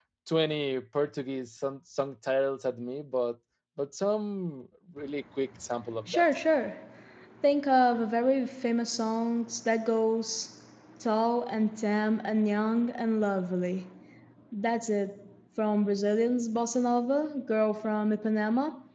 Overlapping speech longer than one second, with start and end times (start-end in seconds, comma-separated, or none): none